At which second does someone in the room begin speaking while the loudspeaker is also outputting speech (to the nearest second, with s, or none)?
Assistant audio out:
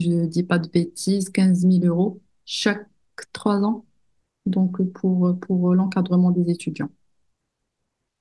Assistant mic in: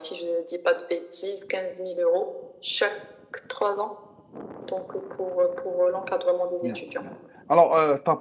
7 s